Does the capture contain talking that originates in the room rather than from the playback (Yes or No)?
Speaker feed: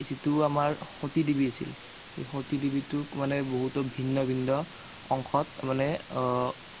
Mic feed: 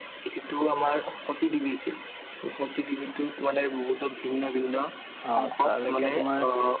Yes